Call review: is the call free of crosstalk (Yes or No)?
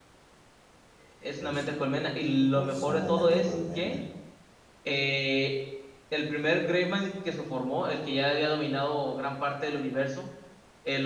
No